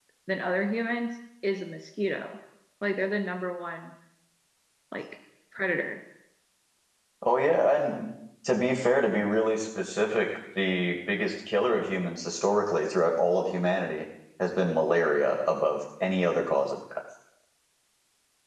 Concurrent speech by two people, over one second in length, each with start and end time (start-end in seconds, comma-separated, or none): none